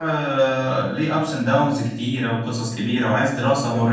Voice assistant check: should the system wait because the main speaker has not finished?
Yes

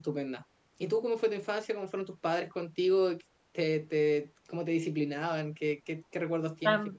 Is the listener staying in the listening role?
No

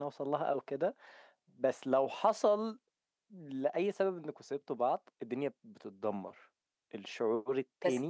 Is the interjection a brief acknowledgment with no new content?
No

